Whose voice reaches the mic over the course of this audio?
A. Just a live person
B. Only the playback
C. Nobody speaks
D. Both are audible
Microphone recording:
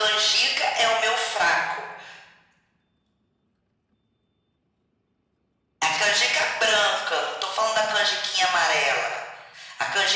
B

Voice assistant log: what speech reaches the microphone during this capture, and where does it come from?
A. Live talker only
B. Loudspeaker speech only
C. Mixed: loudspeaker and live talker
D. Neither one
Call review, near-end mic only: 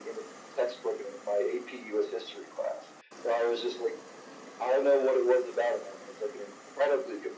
B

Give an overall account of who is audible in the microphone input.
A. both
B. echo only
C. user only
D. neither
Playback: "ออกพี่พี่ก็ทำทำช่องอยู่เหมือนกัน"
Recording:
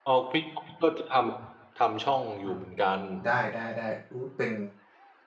A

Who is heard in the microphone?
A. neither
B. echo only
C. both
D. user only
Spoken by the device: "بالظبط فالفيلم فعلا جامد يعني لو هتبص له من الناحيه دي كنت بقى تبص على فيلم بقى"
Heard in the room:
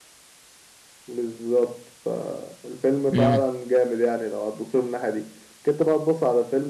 C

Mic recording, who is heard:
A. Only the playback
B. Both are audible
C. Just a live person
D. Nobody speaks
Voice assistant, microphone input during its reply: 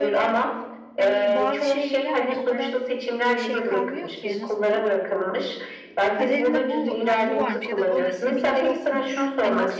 B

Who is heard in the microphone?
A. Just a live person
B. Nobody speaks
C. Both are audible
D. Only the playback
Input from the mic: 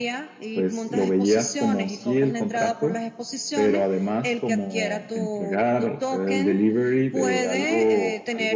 C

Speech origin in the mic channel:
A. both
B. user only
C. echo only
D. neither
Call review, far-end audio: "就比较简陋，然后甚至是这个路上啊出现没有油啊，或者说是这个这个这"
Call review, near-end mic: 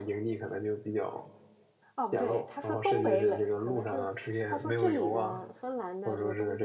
A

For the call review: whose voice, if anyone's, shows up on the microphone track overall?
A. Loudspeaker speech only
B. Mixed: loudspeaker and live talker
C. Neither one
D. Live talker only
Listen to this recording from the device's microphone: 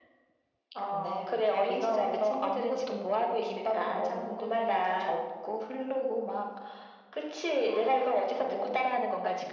A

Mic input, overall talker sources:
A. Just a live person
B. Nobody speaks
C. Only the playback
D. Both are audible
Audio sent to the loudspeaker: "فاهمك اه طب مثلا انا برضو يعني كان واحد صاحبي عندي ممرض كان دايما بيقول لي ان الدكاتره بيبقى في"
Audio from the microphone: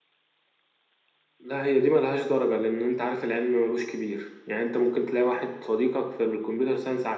A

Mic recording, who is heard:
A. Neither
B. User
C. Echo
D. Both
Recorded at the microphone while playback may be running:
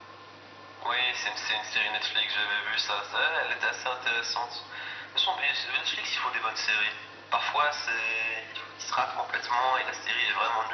C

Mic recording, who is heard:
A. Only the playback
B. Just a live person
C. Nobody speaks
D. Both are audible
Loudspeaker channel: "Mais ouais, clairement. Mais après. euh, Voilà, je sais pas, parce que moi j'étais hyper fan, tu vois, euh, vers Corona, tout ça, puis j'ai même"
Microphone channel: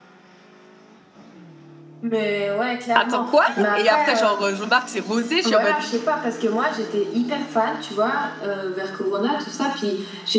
D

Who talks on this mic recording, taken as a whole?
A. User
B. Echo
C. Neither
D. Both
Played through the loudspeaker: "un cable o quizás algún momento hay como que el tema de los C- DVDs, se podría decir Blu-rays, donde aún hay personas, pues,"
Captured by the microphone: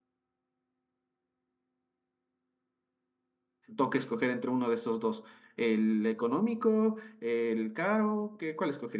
A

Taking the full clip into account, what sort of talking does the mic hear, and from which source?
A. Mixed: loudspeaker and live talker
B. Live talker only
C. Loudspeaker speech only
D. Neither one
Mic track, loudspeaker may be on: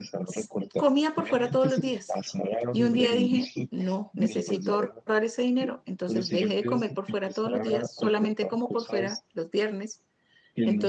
A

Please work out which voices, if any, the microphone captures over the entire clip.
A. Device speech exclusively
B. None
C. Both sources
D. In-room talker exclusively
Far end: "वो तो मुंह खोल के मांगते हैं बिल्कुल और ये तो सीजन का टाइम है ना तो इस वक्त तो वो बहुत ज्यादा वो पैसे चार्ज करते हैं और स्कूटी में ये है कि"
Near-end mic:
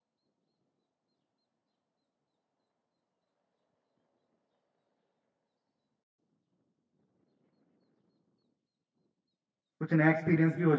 D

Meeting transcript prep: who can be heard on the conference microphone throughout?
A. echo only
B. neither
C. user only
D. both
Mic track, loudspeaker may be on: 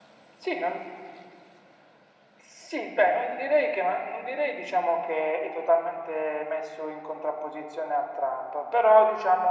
A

